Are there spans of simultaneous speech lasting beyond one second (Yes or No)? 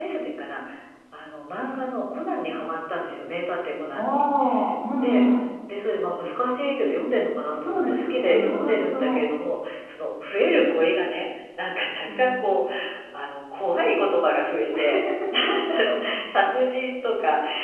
Yes